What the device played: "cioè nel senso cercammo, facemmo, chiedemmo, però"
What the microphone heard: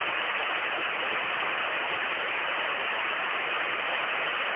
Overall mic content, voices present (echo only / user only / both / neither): neither